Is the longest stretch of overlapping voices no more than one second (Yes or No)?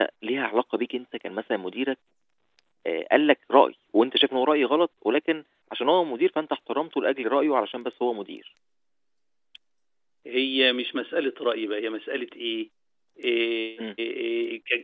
Yes